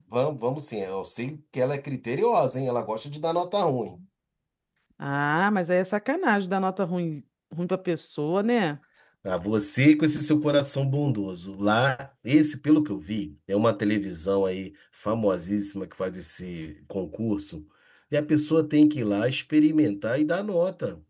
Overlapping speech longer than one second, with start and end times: none

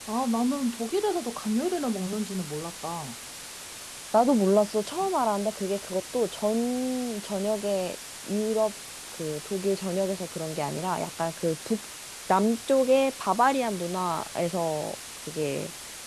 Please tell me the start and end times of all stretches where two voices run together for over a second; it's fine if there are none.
none

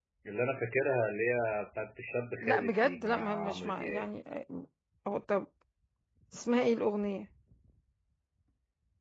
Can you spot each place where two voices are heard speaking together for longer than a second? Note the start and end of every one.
2.4-4.0

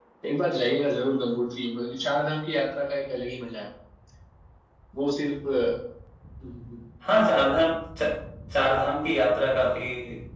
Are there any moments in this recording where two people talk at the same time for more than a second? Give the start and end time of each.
none

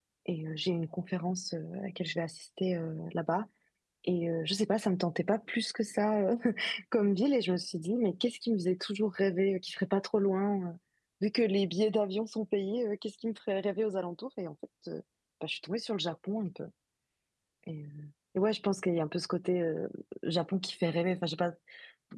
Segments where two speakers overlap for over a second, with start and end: none

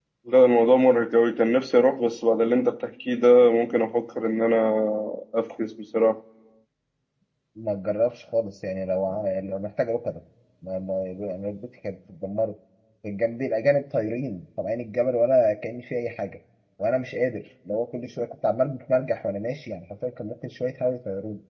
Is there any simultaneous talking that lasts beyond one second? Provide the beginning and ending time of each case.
none

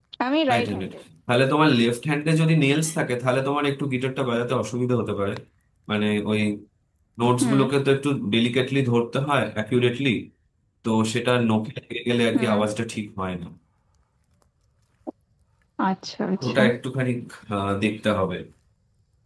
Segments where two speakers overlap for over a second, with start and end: none

